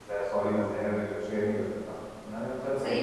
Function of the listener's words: taking over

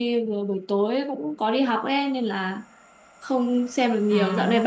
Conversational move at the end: listening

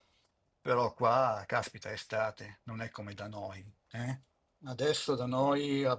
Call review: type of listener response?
listening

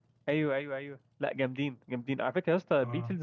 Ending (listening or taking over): listening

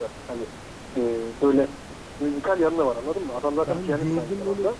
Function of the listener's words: taking over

